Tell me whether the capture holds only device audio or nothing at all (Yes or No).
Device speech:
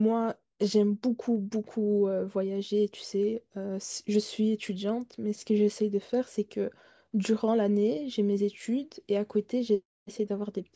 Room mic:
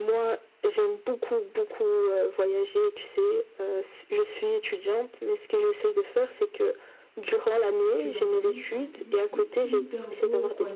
No